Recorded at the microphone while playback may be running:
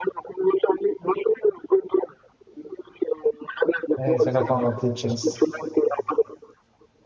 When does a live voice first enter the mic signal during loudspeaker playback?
4.0 s

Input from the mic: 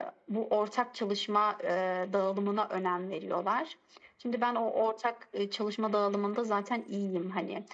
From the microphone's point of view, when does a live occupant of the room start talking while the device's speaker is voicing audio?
none

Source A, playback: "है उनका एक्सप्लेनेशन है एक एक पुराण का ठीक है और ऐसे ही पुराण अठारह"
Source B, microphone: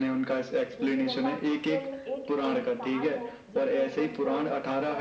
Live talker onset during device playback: 0.8 s

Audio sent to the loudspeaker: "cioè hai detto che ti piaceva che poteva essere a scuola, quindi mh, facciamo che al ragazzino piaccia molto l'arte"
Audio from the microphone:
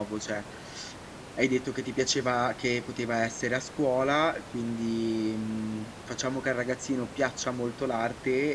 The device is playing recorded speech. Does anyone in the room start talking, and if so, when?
none

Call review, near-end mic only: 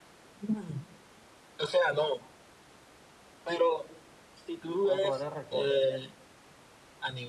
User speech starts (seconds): 4.8 s

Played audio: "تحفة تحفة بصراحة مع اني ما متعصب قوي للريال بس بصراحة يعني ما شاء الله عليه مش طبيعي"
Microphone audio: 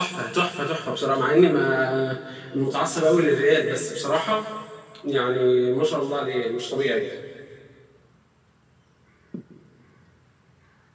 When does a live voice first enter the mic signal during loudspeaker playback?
none

